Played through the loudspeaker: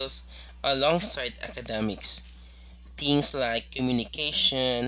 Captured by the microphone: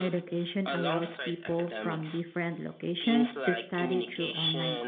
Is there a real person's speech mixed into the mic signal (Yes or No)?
Yes